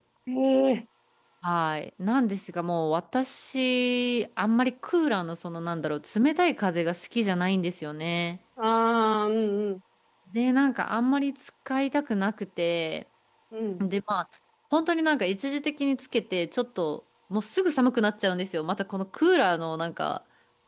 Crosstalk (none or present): none